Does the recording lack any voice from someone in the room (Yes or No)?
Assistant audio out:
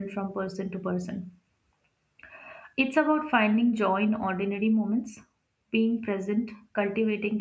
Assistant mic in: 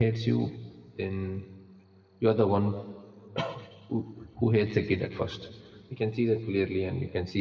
No